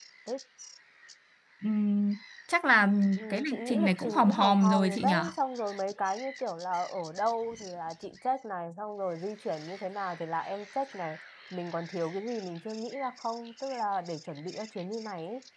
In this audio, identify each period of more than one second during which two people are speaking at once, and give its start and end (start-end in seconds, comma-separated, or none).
3.3-5.2